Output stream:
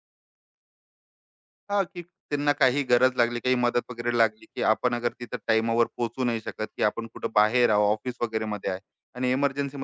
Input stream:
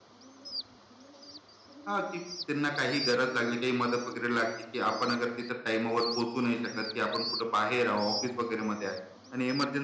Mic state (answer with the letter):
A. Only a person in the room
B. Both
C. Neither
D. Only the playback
D